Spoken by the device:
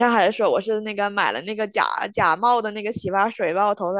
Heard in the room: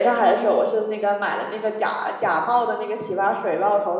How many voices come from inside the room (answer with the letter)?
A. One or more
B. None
B